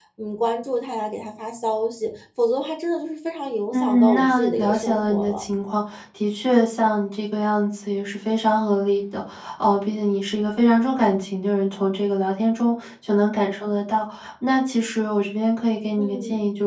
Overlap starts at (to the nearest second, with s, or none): 4 s